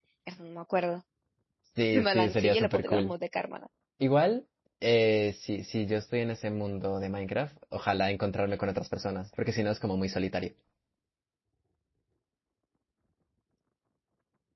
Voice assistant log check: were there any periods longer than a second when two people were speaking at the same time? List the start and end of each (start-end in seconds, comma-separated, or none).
1.9-3.1